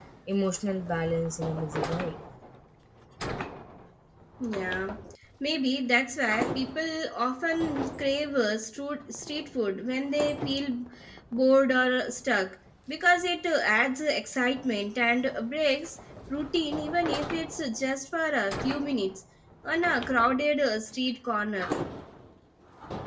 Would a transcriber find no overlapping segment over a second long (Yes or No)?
Yes